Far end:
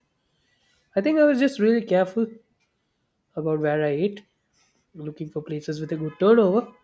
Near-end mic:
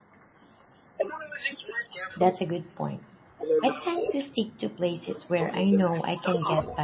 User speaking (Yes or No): Yes